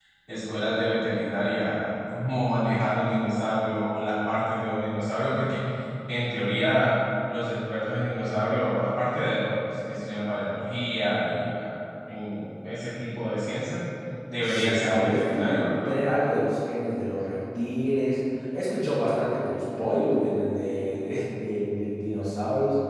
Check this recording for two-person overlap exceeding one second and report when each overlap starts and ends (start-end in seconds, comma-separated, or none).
14.4-15.9